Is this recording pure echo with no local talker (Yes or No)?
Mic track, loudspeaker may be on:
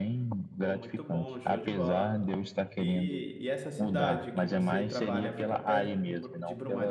No